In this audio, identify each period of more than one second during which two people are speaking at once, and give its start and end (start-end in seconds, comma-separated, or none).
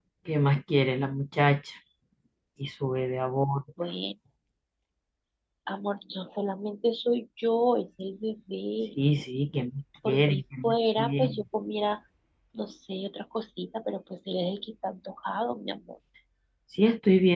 10.1-11.4